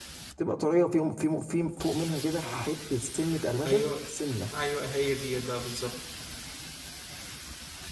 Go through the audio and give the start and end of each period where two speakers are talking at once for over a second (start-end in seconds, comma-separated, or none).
none